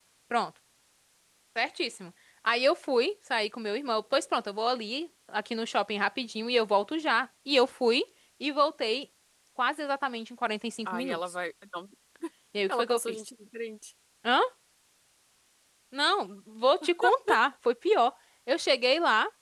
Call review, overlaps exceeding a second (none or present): none